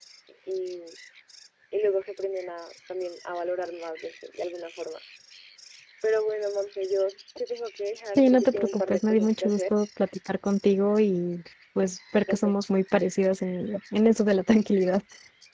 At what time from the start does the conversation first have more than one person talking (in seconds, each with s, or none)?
8.2 s